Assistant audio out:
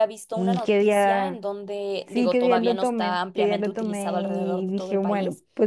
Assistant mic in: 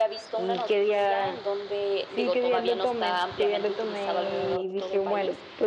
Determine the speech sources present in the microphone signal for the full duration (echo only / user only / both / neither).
echo only